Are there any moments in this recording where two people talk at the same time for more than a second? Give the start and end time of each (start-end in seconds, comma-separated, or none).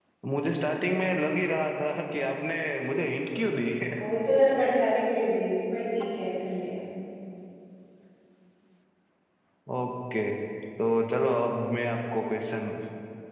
none